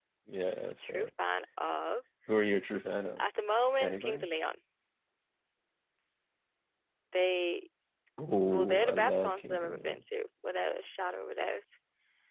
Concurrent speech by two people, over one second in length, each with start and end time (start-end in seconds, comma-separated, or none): 8.5-10.0